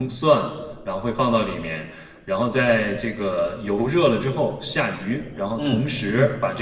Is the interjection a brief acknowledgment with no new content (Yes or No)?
Yes